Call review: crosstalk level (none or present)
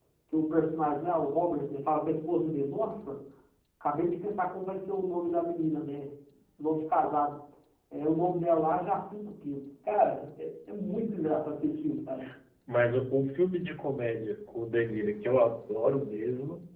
none